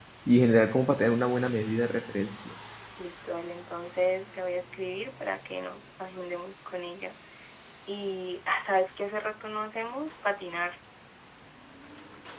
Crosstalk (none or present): none